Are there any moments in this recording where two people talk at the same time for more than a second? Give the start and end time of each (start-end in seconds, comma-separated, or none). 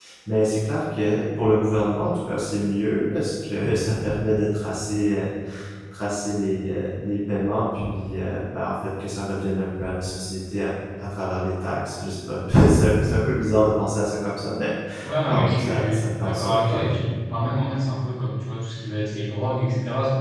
15.2-16.9